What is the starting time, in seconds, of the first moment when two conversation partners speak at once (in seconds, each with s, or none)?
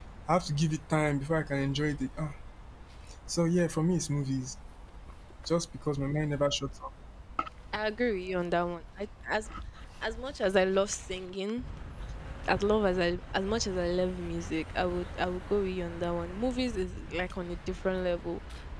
none